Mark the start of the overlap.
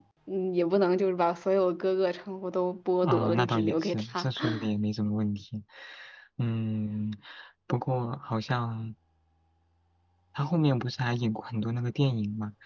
3.0 s

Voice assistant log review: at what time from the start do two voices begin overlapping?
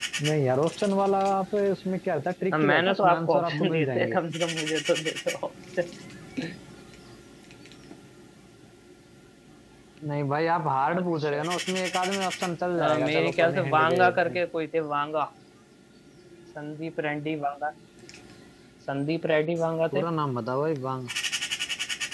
2.5 s

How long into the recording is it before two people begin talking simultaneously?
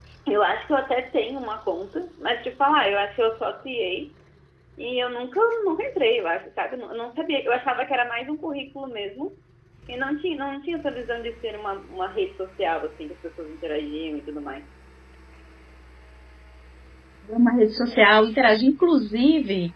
none

